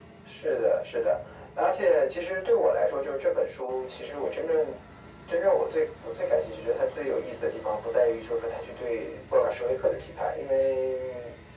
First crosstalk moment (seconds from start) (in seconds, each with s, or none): none